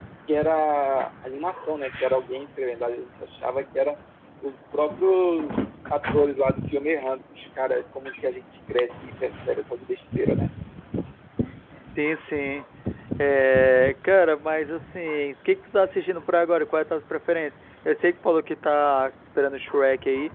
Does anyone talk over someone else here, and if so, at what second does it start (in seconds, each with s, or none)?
none